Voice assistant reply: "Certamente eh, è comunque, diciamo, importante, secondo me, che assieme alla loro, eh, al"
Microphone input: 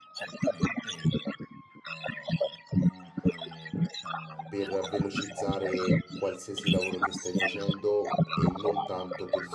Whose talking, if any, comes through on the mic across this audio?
both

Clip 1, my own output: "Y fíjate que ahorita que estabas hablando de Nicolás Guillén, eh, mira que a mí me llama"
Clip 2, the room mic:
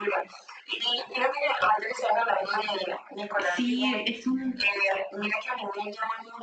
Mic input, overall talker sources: both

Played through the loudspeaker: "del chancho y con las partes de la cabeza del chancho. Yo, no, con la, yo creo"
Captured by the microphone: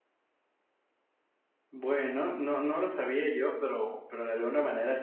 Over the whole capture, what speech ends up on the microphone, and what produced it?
user only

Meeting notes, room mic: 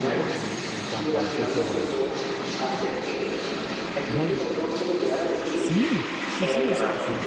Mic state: both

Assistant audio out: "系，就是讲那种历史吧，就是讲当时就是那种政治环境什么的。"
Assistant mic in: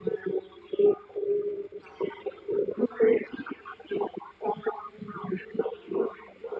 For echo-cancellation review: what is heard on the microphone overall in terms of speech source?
echo only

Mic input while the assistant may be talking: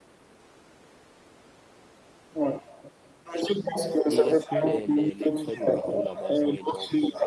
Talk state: both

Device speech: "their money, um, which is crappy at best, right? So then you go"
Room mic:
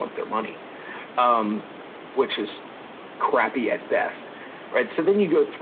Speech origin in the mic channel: echo only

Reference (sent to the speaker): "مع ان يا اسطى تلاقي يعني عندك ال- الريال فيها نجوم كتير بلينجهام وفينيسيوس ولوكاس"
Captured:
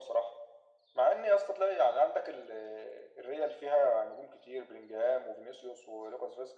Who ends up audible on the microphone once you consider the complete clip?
echo only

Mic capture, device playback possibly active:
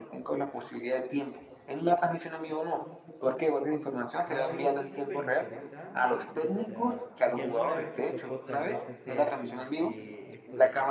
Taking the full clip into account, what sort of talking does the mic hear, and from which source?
both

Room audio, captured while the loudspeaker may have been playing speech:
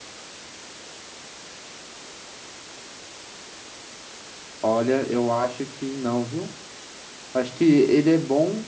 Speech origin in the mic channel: user only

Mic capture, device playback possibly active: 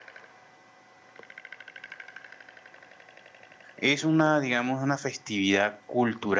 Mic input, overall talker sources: user only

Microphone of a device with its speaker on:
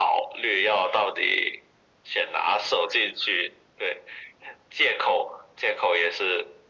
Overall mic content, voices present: echo only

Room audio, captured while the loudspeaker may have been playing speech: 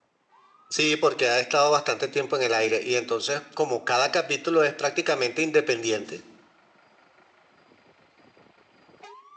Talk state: user only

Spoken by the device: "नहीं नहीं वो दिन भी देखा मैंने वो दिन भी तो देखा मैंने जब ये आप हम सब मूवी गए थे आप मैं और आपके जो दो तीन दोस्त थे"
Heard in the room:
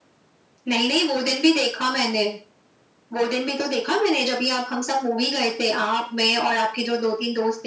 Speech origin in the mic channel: echo only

